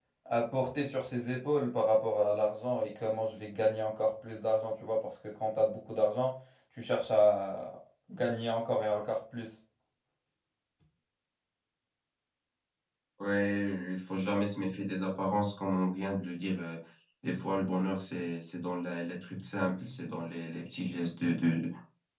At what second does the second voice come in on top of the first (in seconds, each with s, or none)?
none